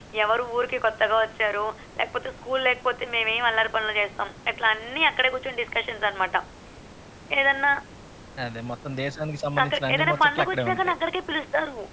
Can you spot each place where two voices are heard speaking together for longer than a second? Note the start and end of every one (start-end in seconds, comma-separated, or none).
9.6-10.9